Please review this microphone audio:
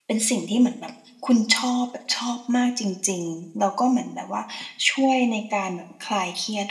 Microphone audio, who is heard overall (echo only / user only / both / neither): user only